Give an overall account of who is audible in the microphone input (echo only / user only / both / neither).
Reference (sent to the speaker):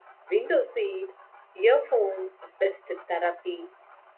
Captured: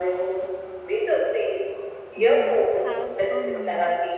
both